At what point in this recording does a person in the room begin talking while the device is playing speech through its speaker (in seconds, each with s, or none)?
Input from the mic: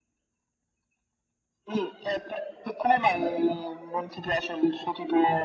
none